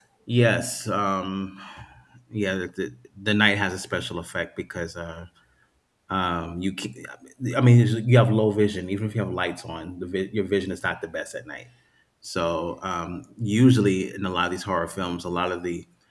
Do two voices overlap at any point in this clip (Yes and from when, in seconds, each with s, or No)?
No